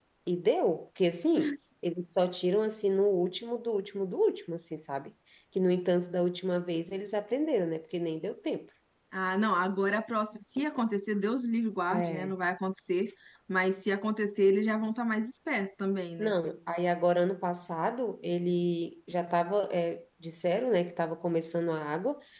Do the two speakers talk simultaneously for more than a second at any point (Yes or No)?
No